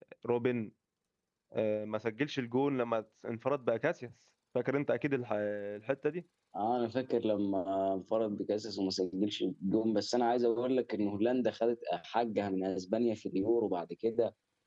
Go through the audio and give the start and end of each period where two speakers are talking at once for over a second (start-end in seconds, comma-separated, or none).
none